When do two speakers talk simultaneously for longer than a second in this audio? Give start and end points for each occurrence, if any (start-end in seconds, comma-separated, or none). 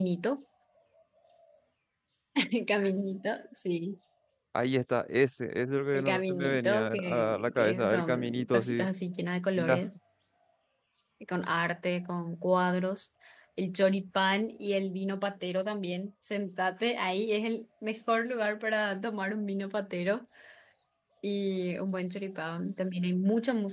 5.9-8.8